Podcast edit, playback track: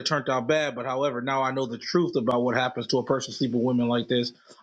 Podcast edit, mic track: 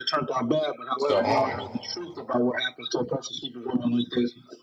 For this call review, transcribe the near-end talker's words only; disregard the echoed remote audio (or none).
so on.